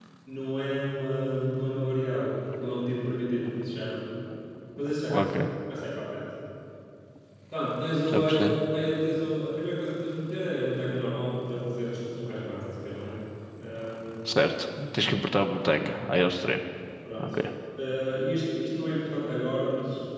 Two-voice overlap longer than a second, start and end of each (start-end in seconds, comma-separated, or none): none